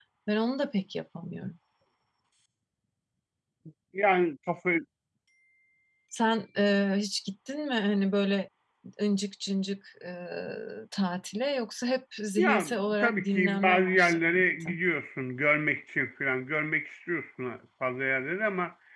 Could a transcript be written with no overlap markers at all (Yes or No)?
No